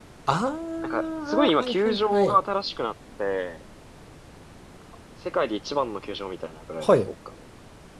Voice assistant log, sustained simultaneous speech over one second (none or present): present